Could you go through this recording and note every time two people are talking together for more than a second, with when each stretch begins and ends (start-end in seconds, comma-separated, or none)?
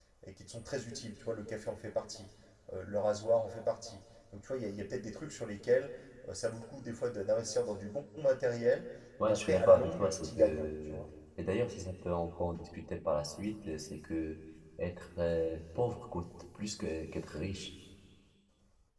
9.2-11.0